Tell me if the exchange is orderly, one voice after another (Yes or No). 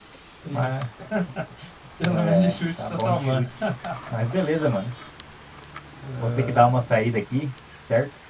No